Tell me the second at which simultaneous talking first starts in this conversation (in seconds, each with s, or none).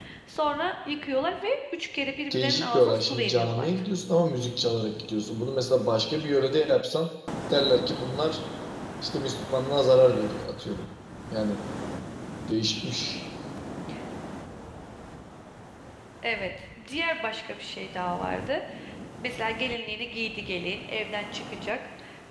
2.3 s